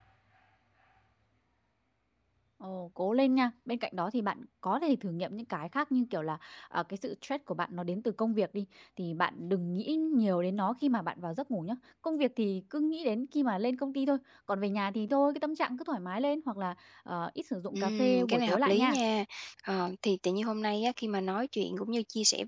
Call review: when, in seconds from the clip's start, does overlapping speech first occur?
18 s

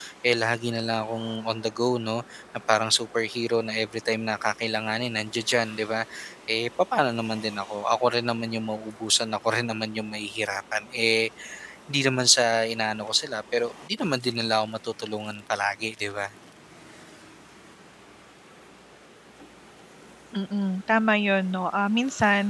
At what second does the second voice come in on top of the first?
none

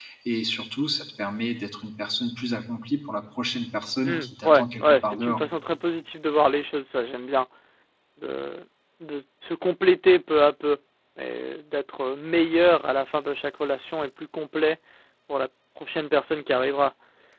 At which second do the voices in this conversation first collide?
4 s

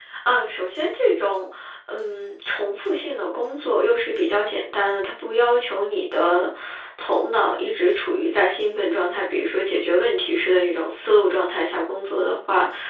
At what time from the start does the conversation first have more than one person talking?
none

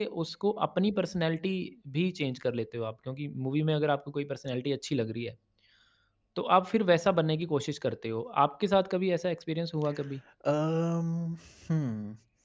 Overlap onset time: none

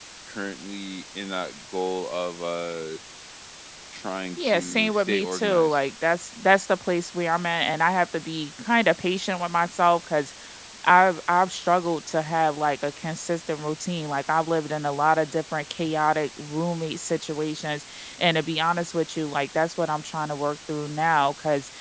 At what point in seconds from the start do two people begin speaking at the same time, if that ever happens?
4 s

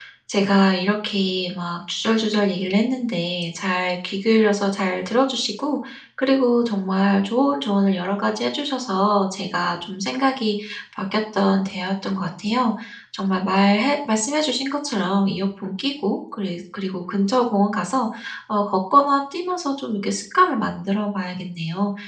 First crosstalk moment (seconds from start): none

